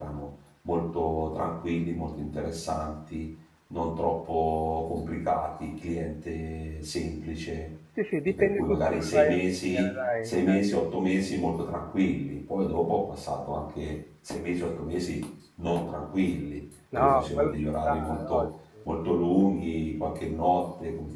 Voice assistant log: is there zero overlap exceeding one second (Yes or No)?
No